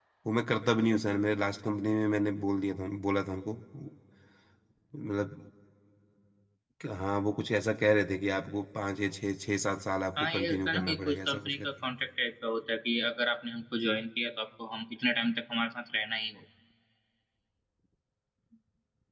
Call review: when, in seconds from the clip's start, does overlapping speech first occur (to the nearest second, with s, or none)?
10 s